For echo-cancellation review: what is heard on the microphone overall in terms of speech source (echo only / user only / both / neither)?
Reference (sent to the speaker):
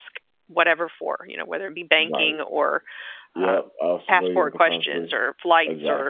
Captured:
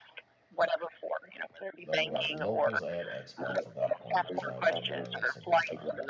both